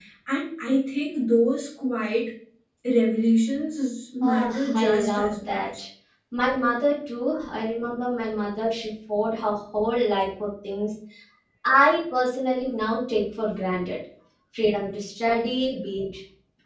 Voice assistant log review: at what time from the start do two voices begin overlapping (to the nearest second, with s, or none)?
4 s